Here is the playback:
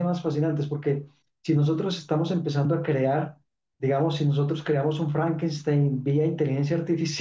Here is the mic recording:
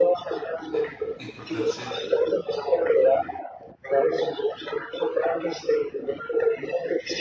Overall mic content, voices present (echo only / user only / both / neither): both